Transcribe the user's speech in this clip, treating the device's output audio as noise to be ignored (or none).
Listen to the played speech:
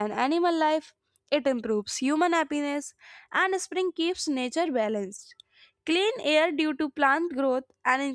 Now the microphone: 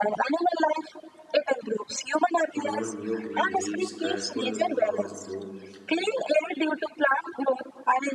grown new green leaves colorful flowers bloom